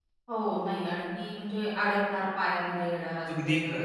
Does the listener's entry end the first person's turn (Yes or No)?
Yes